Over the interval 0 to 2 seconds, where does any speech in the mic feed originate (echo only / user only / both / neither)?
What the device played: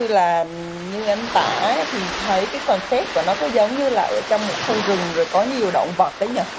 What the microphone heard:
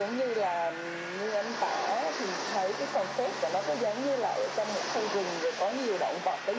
echo only